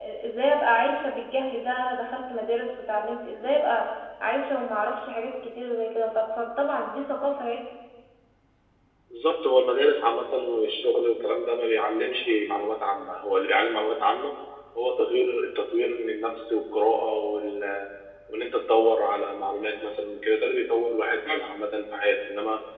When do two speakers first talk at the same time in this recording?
none

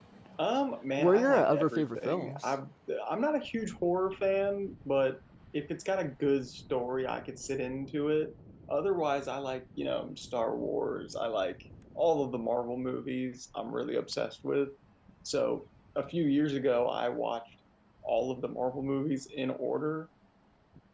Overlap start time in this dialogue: 1.0 s

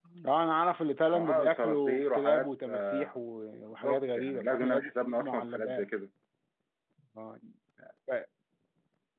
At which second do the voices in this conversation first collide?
1.1 s

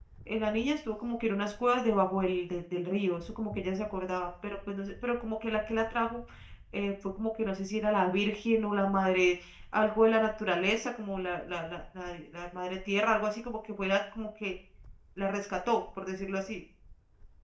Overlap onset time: none

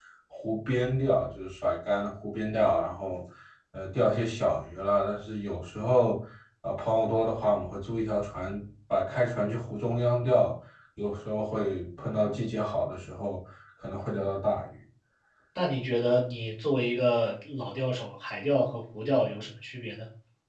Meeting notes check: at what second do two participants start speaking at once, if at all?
none

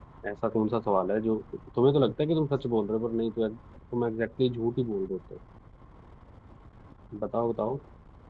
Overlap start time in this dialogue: none

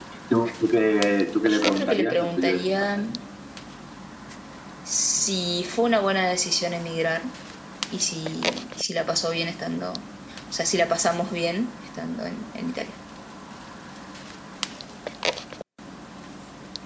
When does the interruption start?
1.5 s

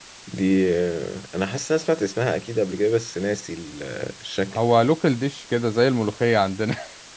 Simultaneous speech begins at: none

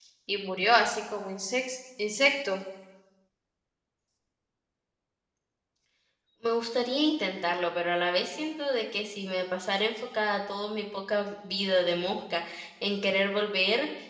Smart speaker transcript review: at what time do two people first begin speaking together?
none

